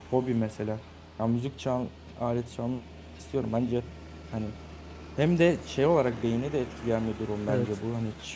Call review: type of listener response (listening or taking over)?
listening